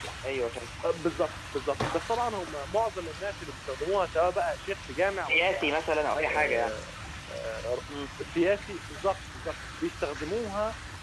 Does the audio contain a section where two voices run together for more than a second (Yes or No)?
No